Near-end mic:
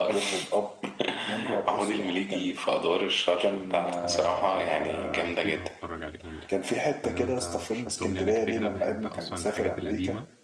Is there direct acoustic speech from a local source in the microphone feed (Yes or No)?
Yes